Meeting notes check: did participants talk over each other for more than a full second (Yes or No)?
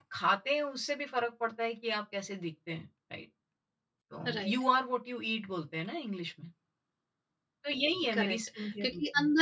Yes